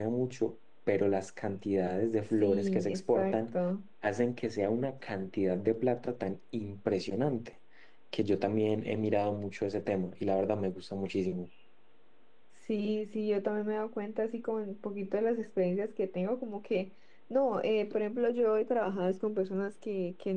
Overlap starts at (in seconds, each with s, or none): 2.3 s